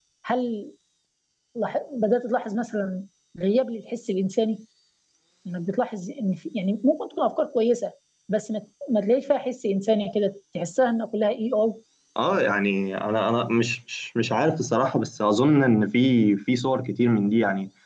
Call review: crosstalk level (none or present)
none